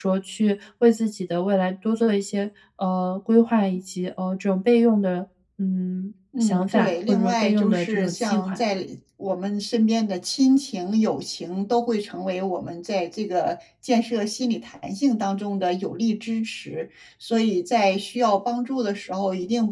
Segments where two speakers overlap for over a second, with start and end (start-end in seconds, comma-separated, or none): 6.4-8.6